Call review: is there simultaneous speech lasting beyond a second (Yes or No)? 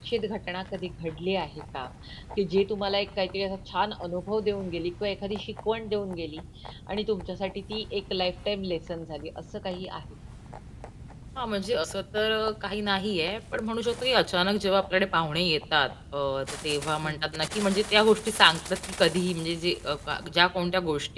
No